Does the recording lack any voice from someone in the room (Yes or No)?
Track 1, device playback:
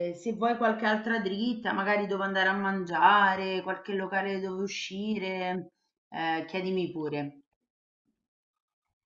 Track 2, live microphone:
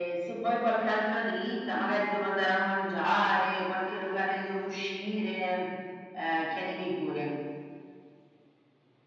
Yes